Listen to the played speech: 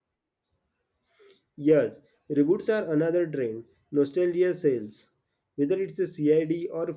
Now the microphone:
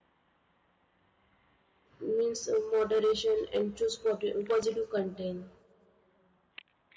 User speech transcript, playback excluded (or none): means uh, moderation and choose pot- positive content.